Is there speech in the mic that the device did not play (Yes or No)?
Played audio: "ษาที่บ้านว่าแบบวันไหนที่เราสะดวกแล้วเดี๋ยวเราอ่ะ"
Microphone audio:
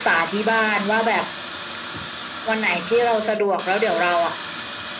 No